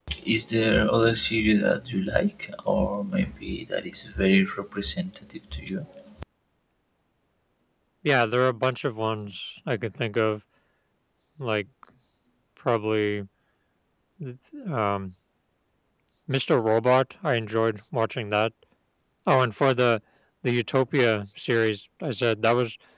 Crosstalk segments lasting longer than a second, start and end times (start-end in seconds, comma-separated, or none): none